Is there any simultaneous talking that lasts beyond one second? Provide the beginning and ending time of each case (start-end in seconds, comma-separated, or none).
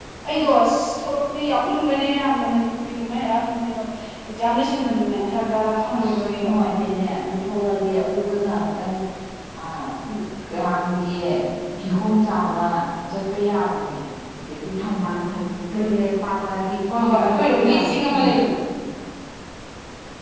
17.0-18.3